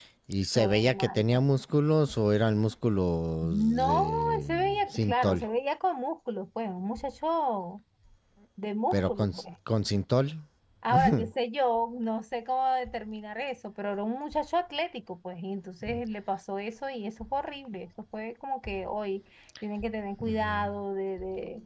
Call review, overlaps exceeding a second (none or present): present